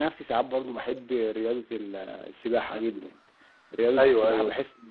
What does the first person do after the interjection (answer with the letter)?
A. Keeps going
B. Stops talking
A